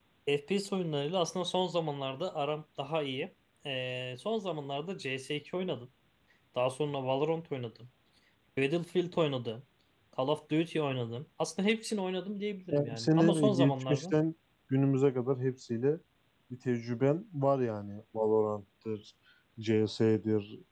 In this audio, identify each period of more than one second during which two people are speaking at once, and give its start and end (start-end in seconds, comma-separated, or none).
12.7-14.1